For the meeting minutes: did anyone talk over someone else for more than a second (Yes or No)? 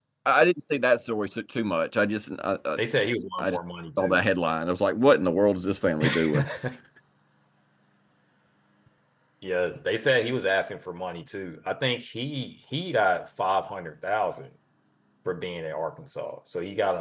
No